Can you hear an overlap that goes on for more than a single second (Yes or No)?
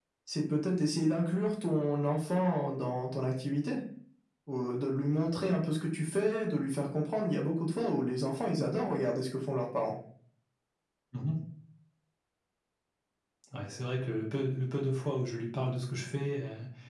No